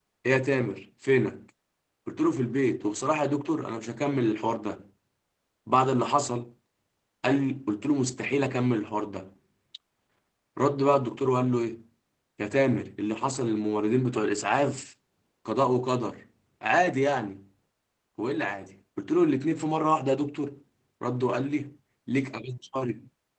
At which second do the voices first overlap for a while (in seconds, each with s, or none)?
none